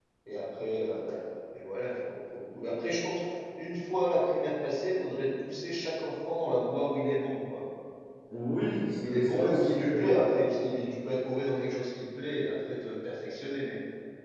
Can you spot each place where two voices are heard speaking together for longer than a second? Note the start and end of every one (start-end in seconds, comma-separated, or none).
8.5-10.1